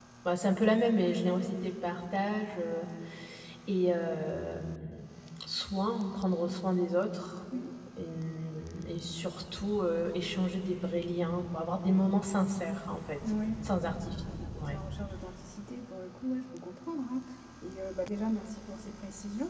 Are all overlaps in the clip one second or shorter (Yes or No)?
Yes